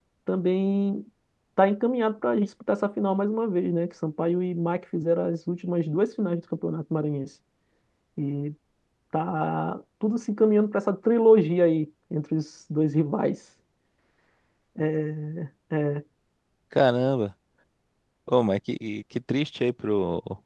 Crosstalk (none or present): none